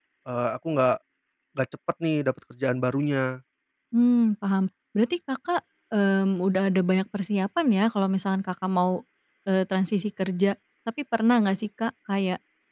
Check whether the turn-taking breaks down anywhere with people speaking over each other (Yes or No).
No